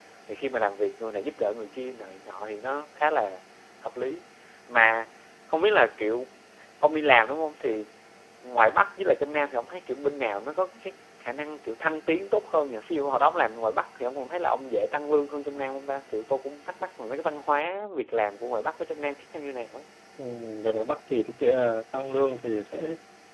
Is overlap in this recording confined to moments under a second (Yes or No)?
Yes